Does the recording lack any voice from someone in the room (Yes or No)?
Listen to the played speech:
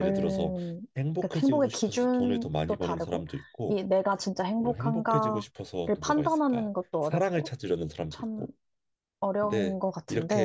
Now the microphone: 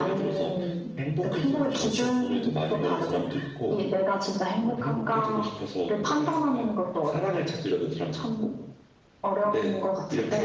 No